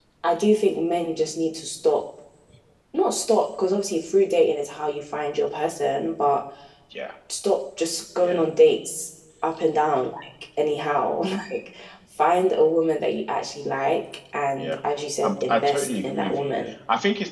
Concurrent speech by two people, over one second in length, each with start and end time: 15.2-16.5

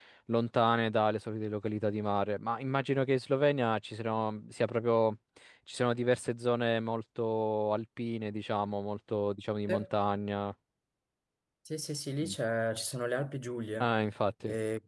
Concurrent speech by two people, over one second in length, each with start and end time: none

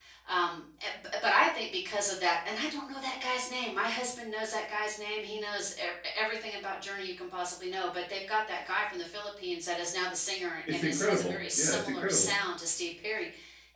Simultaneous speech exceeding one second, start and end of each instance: 10.7-12.3

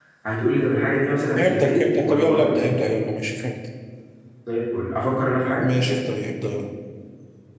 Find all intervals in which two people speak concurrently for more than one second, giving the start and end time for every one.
1.4-2.7

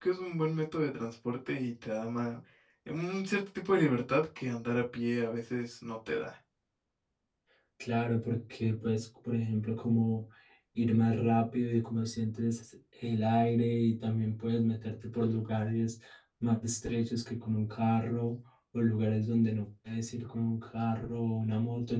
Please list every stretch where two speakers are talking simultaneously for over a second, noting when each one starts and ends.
none

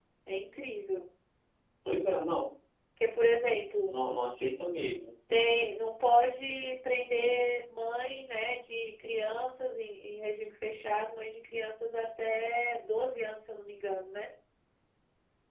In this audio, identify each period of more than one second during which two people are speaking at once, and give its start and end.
none

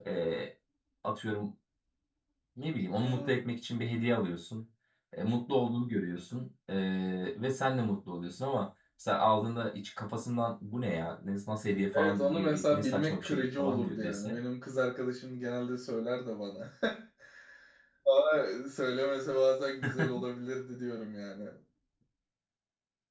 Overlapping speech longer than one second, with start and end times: 11.9-14.4

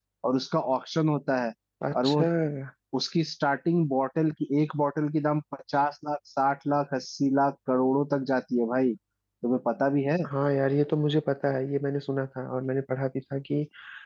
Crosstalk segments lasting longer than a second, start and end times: none

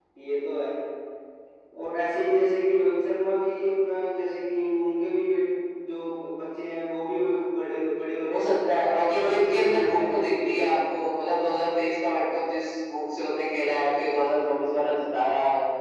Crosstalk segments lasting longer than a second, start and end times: 8.3-10.8

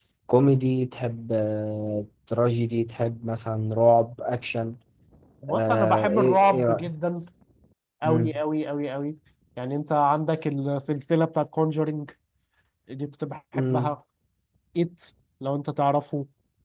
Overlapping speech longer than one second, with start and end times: 5.5-6.9

